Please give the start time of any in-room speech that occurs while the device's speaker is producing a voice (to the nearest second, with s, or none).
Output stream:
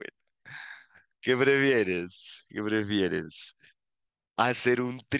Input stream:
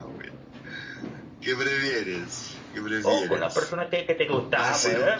3 s